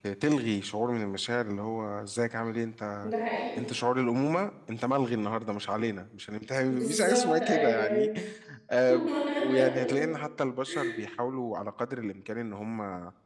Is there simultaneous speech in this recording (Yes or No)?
Yes